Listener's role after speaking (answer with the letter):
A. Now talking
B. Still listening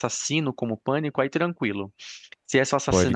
B